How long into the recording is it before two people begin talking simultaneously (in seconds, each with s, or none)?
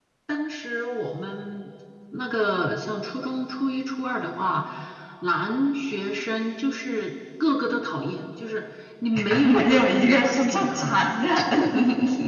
9.3 s